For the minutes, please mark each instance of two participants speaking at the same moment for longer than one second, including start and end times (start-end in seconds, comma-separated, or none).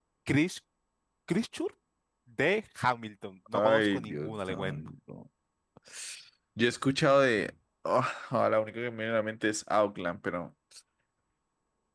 3.5-4.8